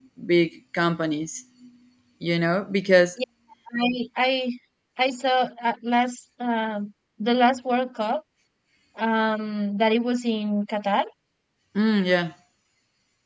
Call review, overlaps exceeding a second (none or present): none